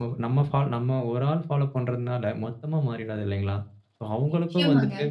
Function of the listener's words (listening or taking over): listening